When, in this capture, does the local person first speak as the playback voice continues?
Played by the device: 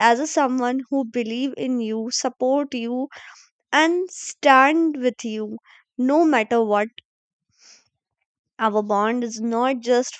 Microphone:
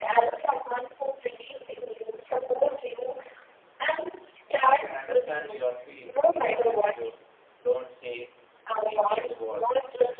4.6 s

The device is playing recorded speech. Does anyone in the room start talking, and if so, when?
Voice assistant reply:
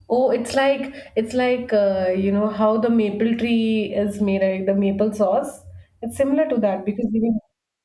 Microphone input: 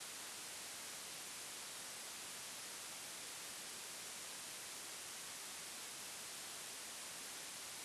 none

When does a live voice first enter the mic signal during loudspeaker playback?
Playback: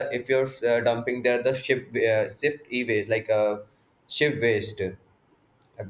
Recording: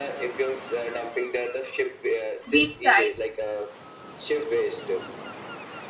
2.5 s

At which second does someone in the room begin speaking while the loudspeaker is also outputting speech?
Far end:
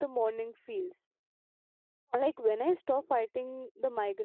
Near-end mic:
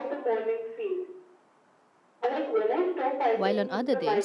3.3 s

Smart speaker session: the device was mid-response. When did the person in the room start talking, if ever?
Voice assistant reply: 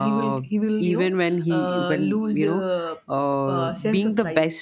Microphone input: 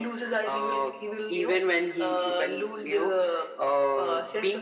none

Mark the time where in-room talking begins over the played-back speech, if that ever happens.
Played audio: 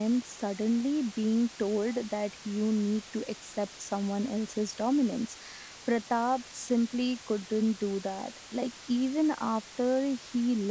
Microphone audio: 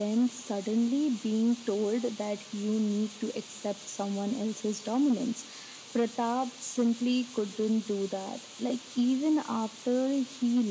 none

